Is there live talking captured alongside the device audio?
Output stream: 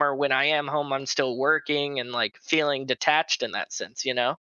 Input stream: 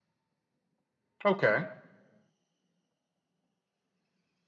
Yes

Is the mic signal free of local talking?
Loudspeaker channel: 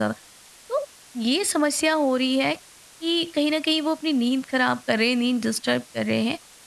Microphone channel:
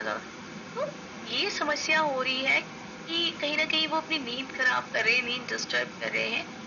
Yes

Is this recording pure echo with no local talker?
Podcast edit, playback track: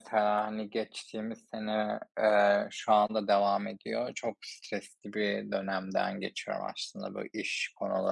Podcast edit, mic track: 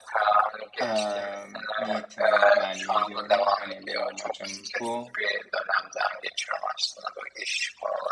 No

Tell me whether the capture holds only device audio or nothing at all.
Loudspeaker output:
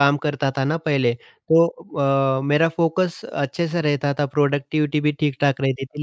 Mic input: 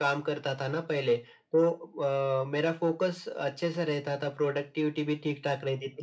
Yes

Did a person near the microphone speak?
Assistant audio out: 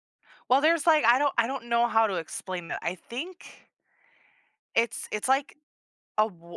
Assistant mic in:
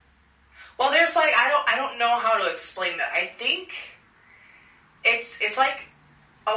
No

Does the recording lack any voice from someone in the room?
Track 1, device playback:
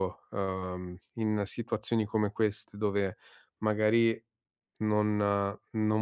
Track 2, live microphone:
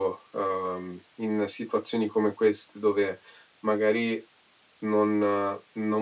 Yes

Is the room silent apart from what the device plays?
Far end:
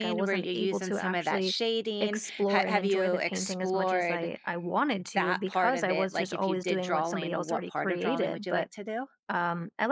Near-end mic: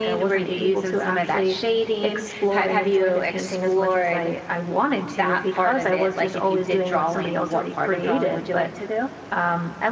Yes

